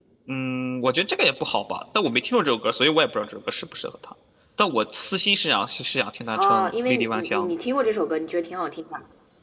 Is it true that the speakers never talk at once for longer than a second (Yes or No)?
No